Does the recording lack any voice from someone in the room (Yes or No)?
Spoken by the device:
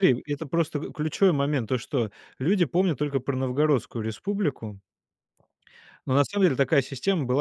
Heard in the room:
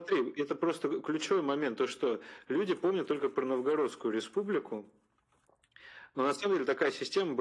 Yes